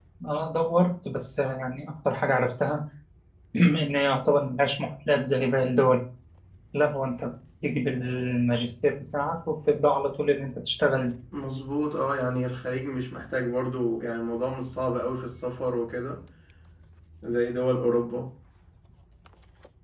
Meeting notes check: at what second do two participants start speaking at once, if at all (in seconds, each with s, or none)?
none